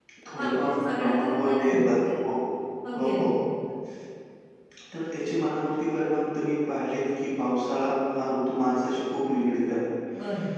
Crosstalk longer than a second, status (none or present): present